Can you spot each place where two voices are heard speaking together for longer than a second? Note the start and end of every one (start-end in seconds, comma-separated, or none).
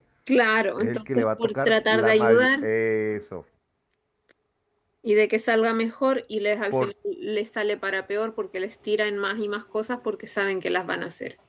0.8-2.7